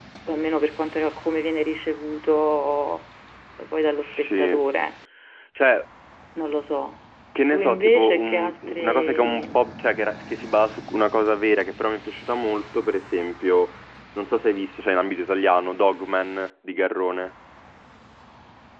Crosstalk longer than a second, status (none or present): present